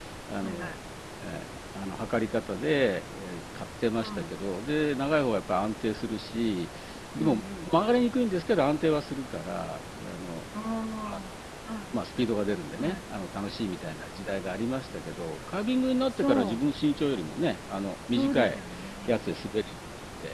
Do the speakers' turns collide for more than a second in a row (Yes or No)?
No